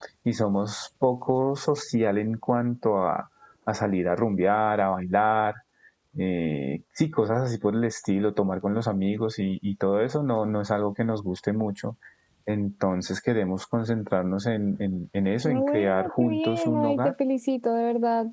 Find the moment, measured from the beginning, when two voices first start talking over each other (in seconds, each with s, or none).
15.4 s